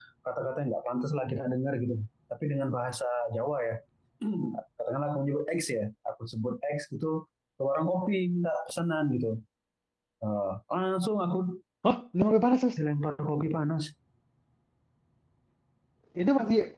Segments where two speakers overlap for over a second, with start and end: none

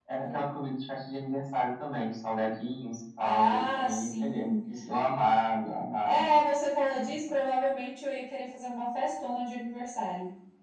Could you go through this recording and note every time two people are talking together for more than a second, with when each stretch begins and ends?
3.2-4.5

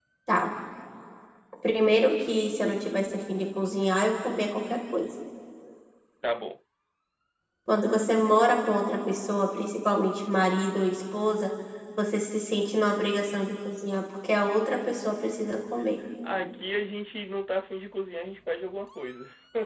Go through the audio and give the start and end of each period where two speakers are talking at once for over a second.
none

